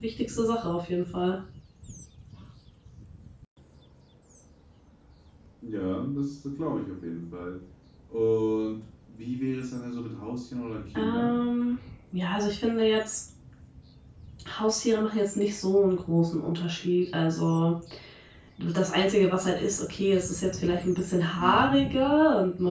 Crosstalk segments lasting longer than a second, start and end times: none

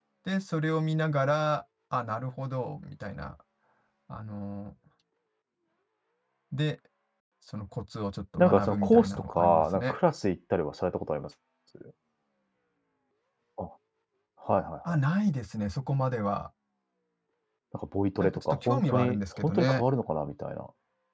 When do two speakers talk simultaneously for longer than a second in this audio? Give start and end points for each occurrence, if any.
8.4-9.9, 18.2-19.8

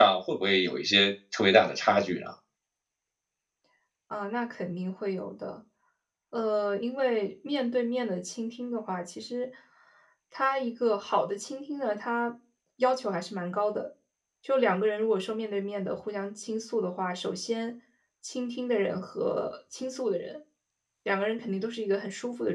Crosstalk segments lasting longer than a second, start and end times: none

